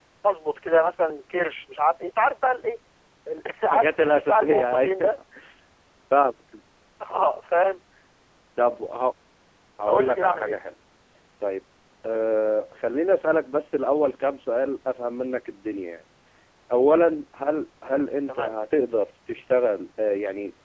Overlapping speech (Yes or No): Yes